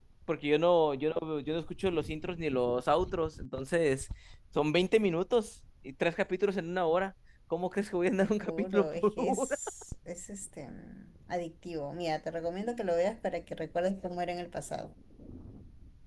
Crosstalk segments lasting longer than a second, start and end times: 8.2-9.5

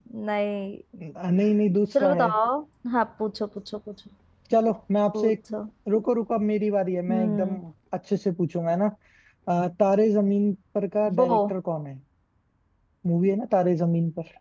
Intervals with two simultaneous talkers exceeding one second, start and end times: none

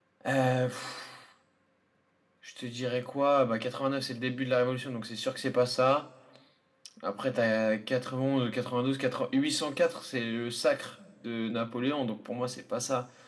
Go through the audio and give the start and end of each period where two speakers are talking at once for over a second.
none

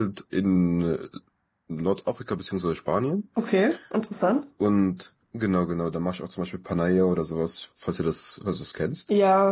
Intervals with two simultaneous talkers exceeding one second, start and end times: none

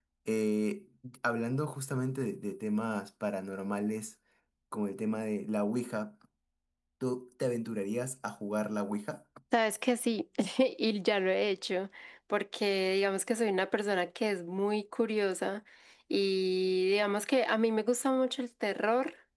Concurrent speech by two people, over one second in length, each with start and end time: none

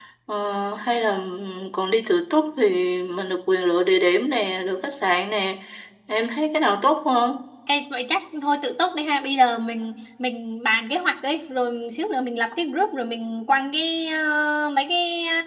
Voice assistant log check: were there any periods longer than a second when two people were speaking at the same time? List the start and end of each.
none

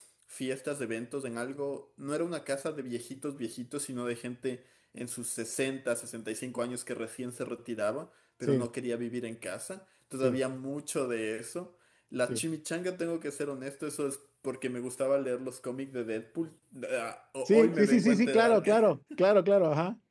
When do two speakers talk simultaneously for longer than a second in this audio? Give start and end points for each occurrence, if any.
17.4-18.8

